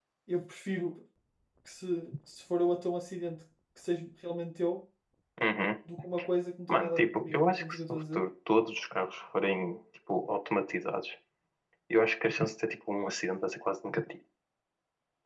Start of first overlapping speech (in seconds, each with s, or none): 6.7 s